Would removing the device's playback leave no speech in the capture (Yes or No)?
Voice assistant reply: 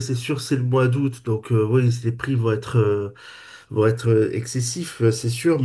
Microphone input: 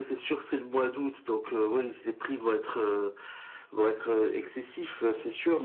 Yes